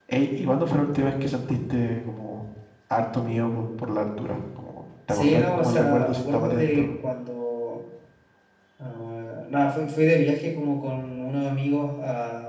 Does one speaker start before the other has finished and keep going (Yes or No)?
Yes